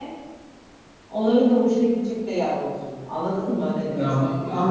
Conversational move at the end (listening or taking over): taking over